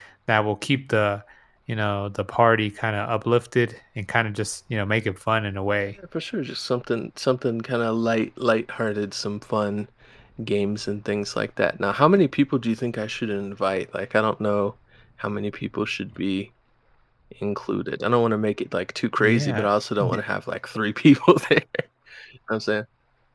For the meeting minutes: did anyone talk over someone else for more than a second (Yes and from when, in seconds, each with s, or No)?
No